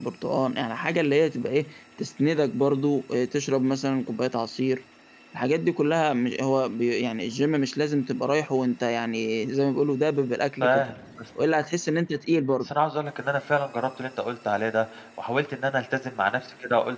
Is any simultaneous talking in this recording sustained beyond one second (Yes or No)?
No